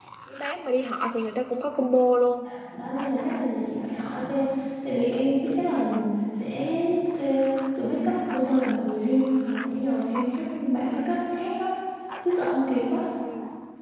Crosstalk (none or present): none